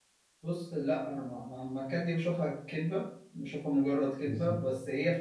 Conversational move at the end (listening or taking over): listening